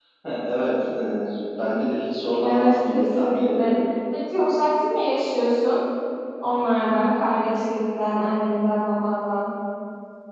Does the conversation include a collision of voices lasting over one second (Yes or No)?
Yes